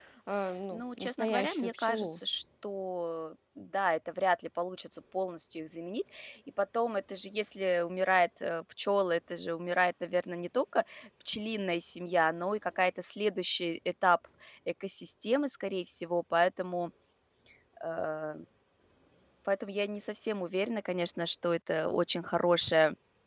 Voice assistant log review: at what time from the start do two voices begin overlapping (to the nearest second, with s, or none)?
1 s